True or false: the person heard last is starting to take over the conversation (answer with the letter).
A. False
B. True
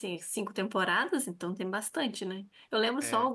A